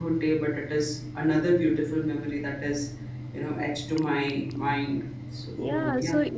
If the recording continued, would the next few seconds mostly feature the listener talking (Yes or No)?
Yes